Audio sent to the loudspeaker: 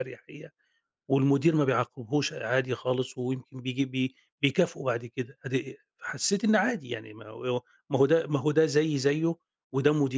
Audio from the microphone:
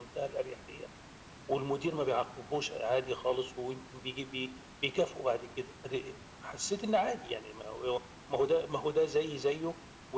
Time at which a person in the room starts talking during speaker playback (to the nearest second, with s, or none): none